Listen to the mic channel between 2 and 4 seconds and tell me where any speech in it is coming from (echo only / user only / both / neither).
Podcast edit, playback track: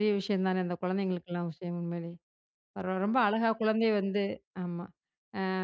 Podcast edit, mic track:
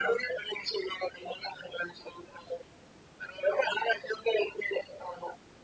echo only